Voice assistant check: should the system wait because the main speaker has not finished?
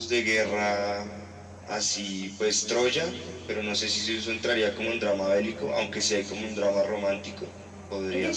No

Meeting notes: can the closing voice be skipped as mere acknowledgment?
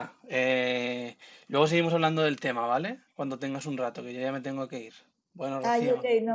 No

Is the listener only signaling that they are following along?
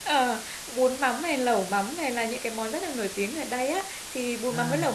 Yes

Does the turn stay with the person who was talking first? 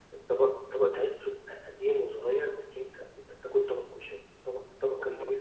Yes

